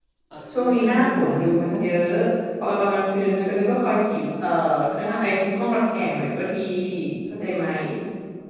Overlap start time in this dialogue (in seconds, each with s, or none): 0.6 s